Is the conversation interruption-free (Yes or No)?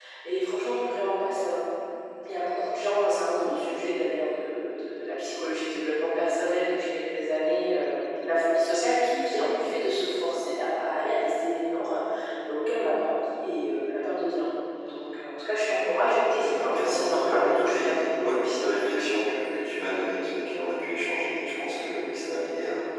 No